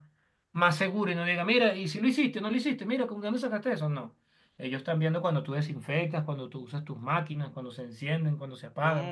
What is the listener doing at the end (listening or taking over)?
taking over